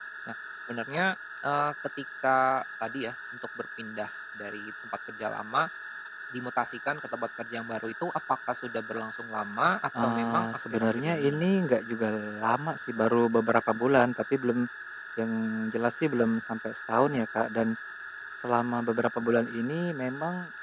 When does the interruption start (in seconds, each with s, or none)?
9.9 s